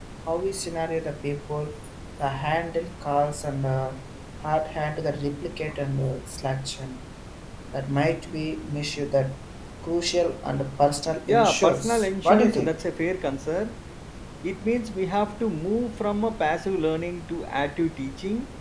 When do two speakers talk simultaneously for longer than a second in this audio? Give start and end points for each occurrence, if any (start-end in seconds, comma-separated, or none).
11.3-12.8